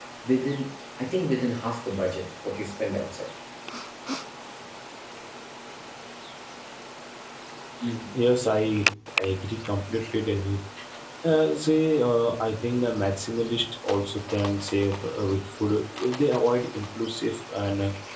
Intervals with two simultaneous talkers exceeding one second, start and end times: none

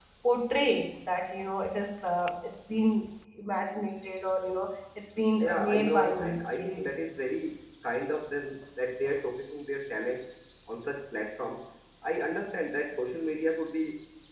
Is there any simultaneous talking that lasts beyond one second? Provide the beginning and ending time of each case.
5.4-7.0

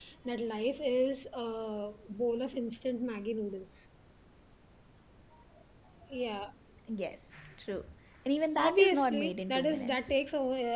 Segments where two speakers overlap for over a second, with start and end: 8.6-10.1

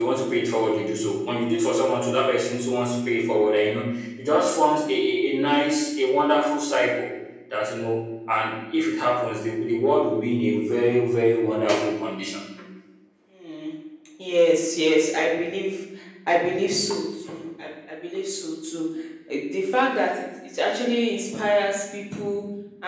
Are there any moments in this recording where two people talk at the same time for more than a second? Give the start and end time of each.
none

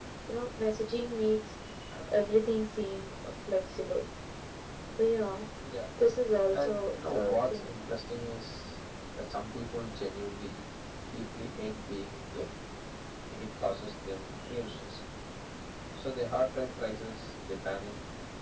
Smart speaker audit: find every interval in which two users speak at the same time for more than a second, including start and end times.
6.5-7.8

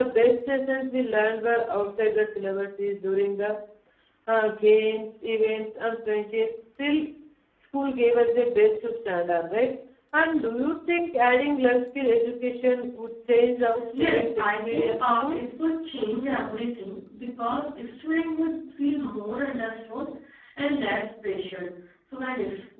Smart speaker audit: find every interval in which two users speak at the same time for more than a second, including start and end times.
14.0-15.4

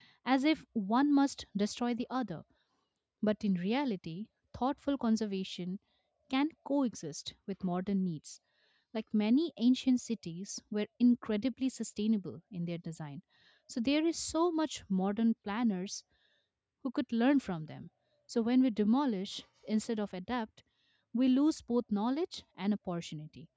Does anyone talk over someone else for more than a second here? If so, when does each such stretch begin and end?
none

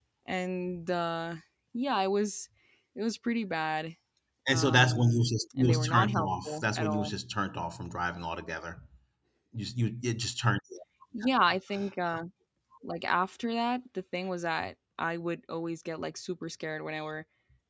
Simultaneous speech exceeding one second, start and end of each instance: 4.5-7.2

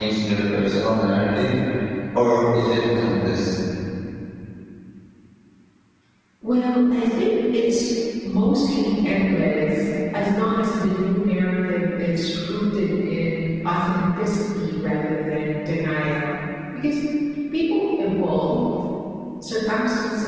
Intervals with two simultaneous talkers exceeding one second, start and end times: none

